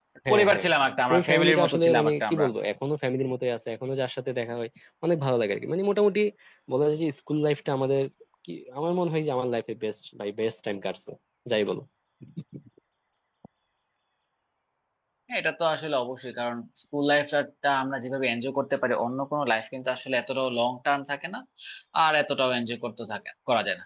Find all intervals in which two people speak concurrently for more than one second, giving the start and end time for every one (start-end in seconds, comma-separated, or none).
1.1-2.5